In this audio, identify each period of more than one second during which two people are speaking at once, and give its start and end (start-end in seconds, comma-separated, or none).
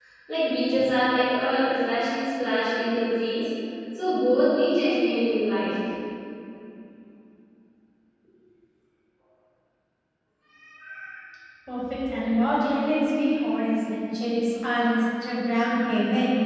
none